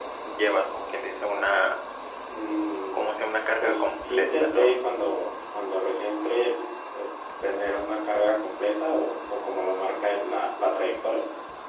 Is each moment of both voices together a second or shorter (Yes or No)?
No